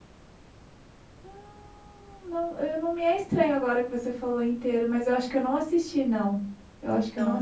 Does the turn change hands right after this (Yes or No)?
Yes